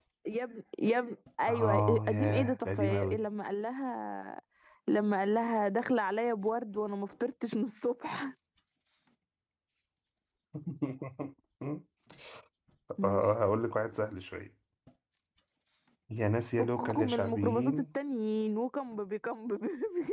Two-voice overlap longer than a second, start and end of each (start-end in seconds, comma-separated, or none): 1.4-3.2, 16.6-17.8